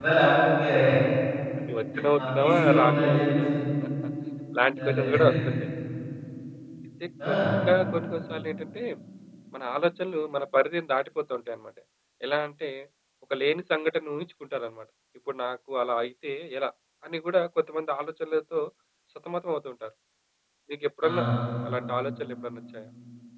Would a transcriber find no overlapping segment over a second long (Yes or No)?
No